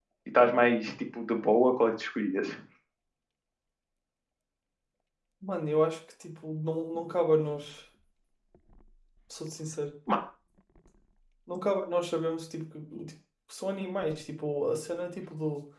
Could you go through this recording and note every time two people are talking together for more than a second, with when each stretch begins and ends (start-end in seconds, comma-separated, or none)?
none